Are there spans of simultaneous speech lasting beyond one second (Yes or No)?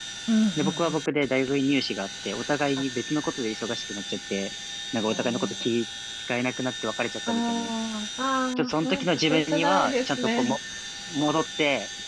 Yes